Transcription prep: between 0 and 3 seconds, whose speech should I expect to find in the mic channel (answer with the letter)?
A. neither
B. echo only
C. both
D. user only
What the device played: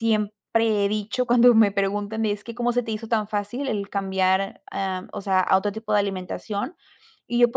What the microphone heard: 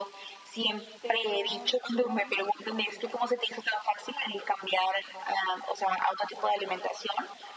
C